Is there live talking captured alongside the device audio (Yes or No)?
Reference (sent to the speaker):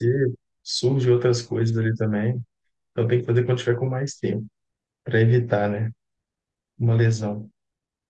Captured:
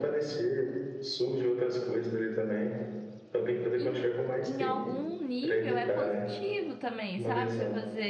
Yes